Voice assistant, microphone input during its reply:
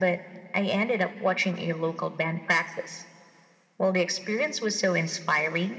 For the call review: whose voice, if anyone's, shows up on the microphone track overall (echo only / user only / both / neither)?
echo only